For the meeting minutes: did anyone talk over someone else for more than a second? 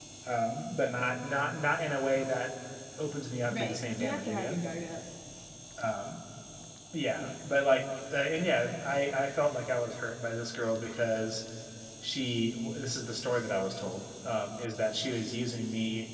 Yes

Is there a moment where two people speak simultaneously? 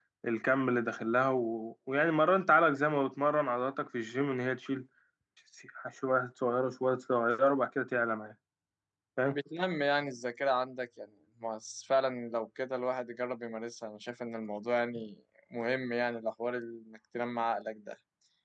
No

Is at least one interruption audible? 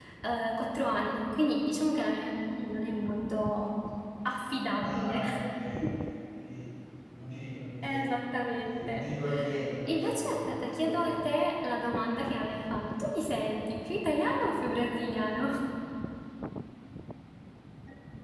Yes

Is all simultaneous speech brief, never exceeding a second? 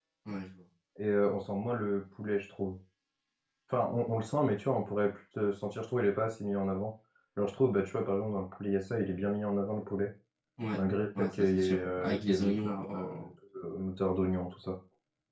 No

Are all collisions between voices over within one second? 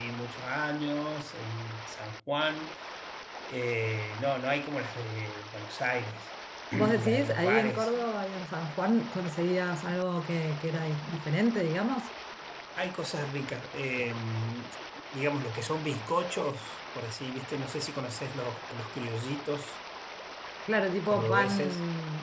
No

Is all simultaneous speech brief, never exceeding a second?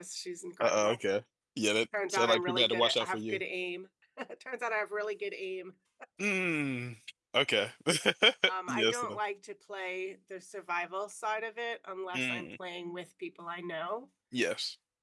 No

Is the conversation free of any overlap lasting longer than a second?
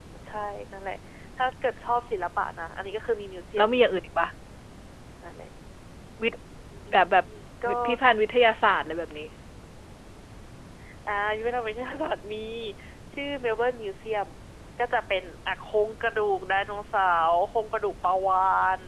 Yes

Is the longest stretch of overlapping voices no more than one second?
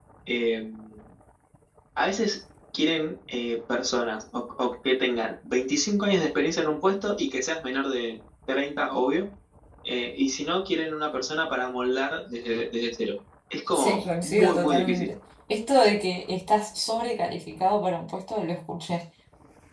No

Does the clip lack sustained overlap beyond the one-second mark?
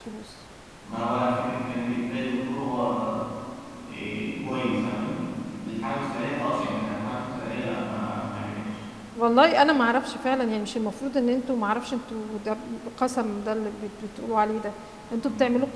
Yes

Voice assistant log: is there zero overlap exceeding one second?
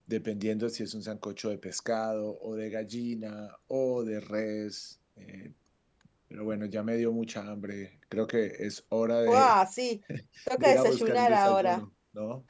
No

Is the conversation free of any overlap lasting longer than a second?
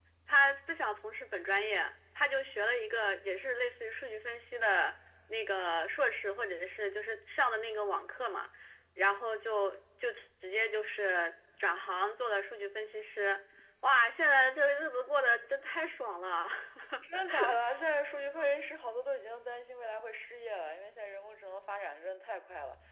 Yes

